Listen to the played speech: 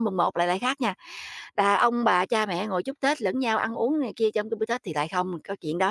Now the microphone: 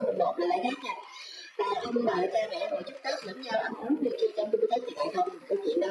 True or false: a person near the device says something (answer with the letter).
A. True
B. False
B